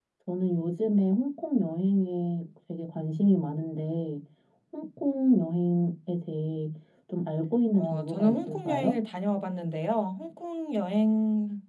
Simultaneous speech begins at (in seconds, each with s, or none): 7.7 s